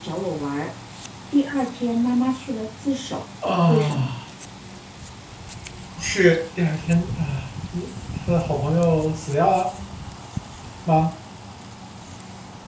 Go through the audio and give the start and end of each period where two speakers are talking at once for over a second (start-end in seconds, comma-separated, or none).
none